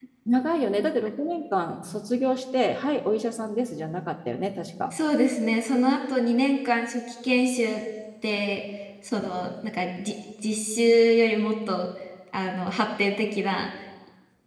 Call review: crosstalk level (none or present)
none